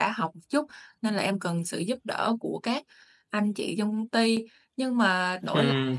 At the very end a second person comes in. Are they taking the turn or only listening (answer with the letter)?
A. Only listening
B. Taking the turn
A